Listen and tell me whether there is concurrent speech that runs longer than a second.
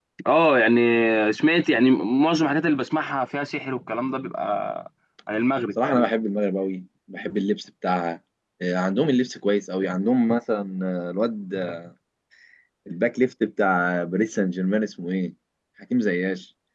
No

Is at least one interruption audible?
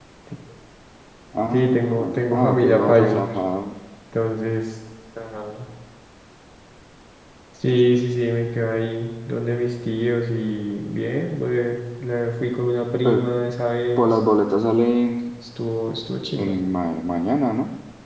Yes, from 1.5 s

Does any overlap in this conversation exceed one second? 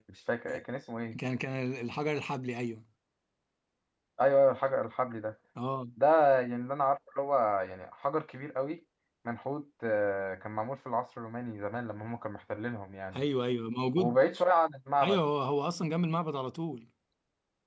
No

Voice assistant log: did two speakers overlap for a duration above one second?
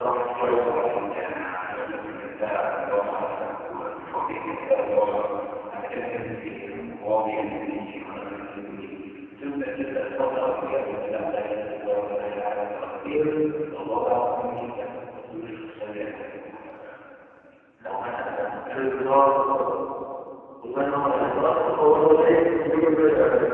No

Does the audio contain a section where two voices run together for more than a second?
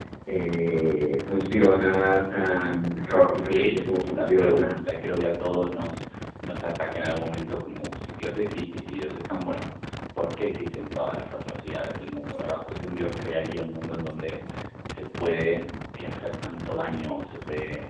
Yes, from 3.5 s

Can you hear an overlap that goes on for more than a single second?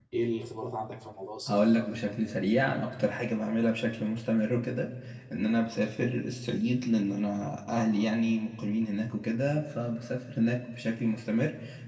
No

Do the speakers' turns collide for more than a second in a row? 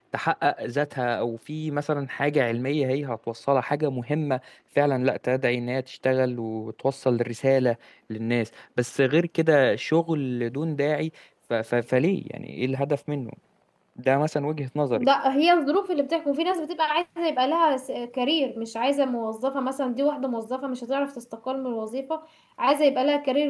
No

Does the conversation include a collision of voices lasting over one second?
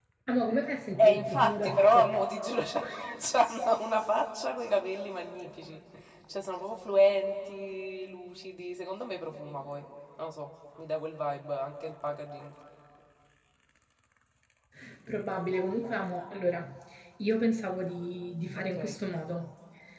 Yes, from 1.0 s

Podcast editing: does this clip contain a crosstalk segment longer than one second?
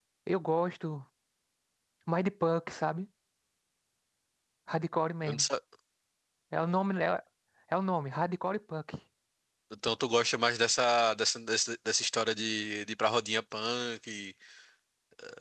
No

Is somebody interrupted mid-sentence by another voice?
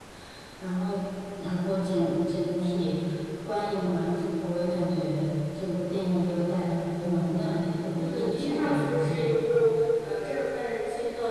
Yes, from 8.0 s

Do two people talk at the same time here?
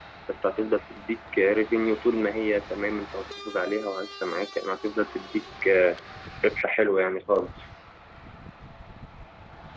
No

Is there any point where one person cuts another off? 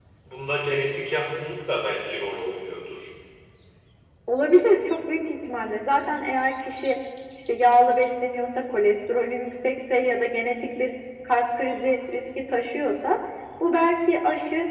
No

